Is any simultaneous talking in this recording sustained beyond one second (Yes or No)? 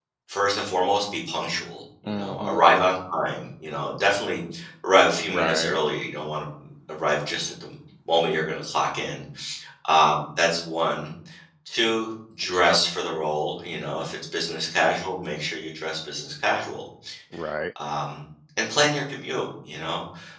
No